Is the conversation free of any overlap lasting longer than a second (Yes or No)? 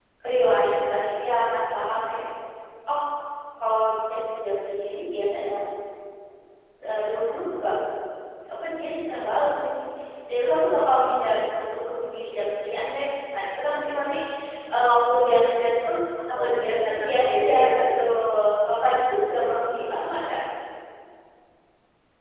No